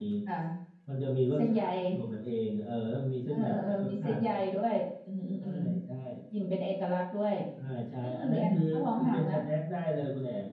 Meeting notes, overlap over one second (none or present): present